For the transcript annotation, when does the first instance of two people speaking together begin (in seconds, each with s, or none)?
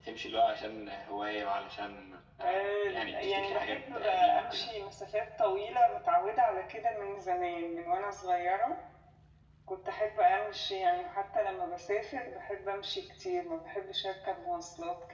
2.4 s